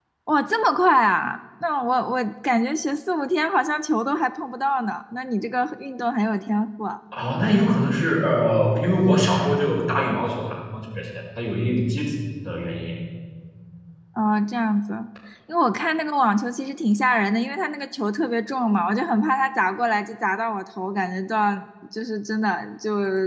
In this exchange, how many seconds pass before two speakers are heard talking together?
none

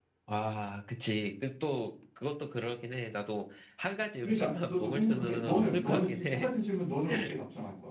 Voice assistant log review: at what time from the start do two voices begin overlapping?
4 s

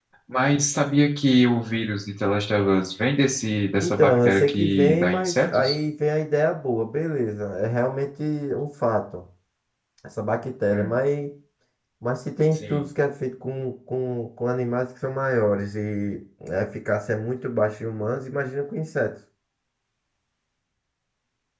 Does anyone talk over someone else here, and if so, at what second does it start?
4 s

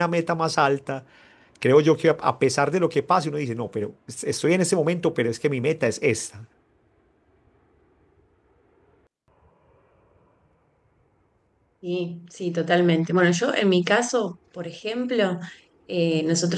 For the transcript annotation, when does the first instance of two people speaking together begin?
none

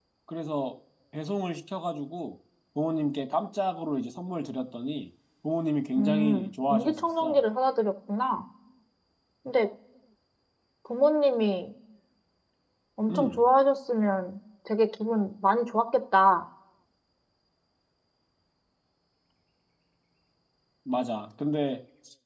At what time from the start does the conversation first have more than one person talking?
6 s

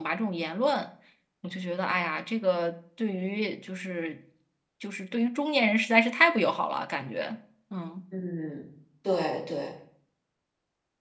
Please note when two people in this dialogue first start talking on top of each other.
none

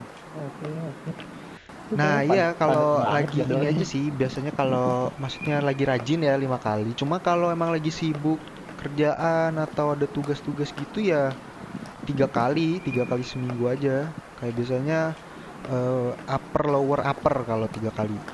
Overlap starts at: 2 s

